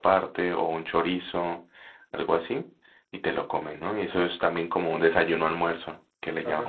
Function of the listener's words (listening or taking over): taking over